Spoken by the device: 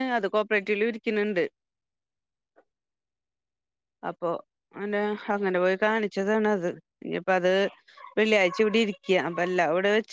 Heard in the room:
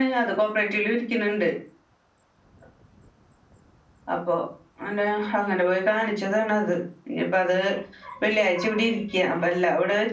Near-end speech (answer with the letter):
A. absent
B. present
A